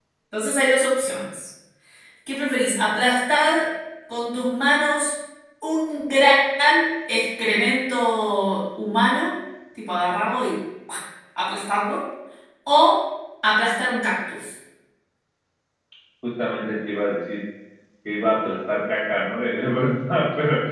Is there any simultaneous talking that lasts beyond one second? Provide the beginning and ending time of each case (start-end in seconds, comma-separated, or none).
none